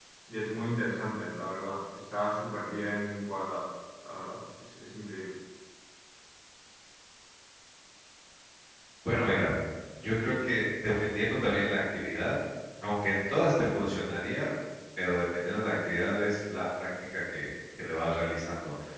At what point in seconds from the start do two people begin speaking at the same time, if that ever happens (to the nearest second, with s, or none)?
none